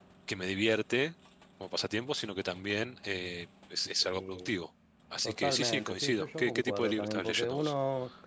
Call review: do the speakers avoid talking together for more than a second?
No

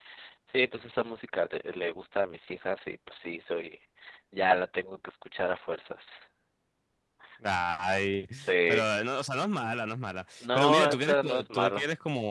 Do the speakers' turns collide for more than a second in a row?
Yes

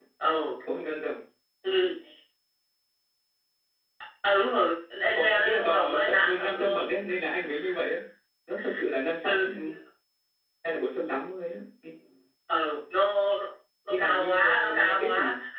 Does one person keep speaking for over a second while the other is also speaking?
Yes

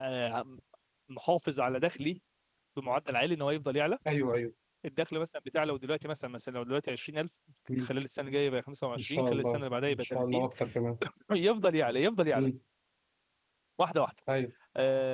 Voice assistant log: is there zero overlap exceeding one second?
No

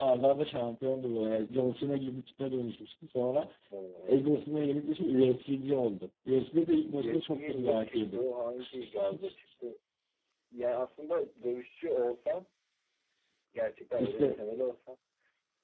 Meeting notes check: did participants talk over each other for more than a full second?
Yes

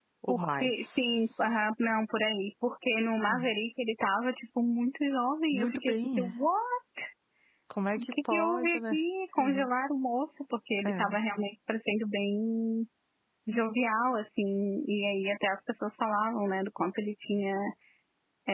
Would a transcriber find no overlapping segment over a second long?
No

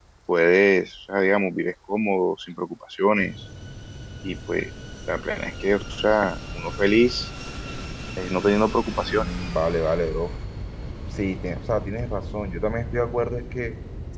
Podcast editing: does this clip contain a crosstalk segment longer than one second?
No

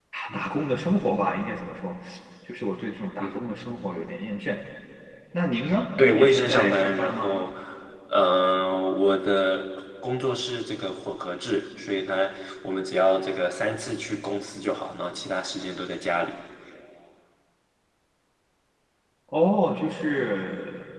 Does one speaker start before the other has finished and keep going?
Yes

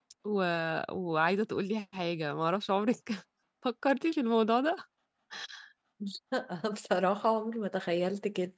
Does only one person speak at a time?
Yes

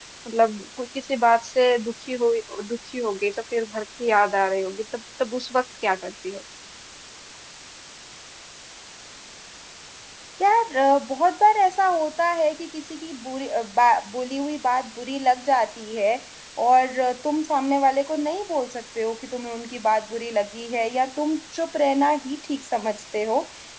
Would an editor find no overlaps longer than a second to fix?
Yes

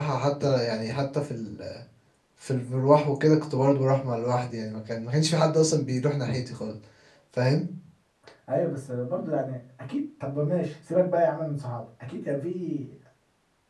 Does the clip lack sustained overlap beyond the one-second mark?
Yes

